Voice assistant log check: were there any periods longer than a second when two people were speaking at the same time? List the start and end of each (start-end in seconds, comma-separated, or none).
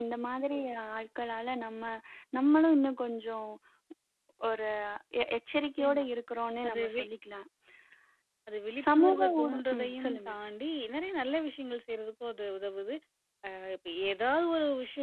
8.9-10.3